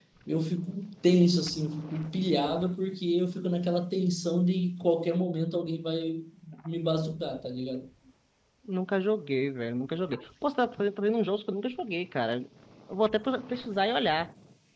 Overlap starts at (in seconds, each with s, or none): none